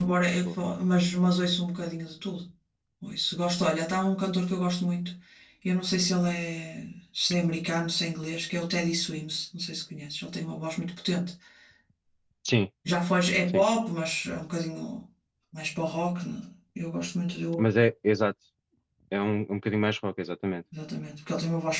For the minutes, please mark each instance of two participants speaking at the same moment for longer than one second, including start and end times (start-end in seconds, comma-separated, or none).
none